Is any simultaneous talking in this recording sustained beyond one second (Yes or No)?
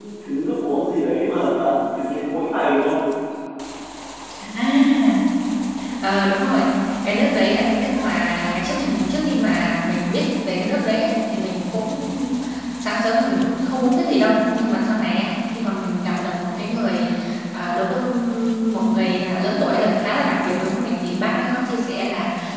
No